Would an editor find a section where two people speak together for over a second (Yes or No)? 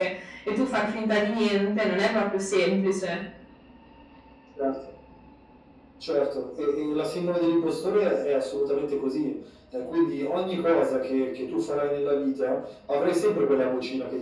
No